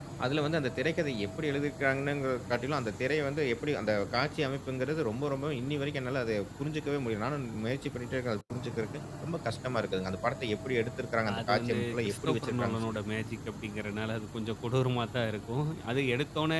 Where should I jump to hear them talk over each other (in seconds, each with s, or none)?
11.3 s